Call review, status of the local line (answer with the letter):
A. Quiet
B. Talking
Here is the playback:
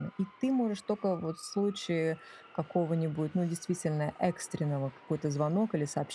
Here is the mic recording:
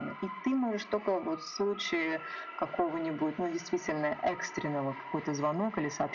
A